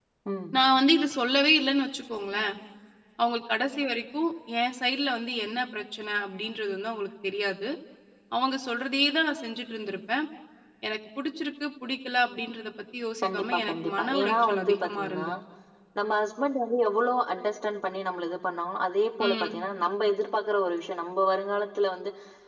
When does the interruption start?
13.2 s

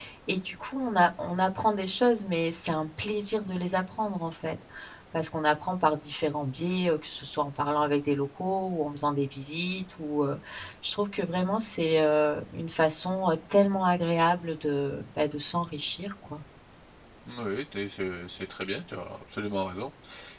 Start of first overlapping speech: none

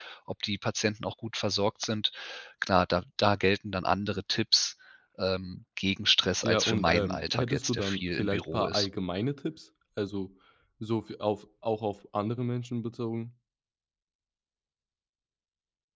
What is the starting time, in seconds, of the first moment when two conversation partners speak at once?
6.4 s

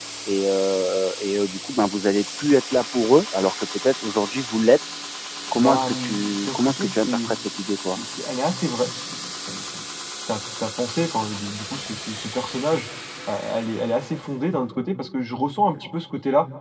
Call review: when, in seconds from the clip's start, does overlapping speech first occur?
5.5 s

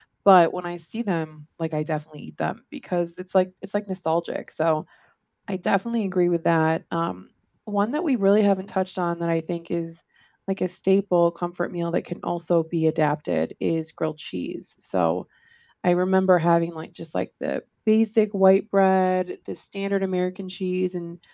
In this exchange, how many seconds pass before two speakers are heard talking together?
none

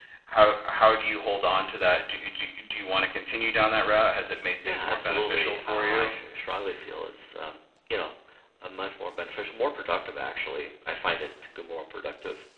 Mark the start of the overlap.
4.6 s

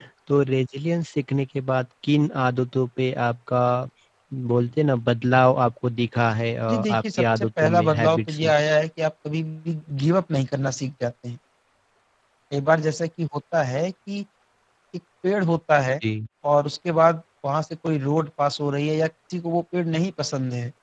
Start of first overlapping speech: 6.7 s

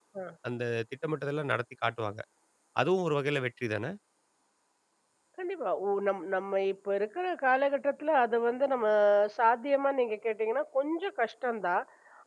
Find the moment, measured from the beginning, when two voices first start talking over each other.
none

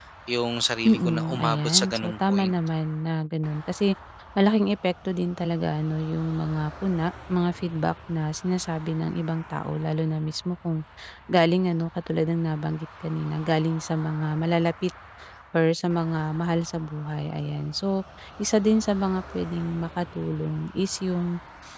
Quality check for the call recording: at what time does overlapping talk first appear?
0.8 s

